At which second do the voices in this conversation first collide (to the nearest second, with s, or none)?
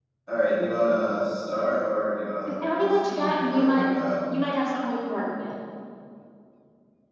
2 s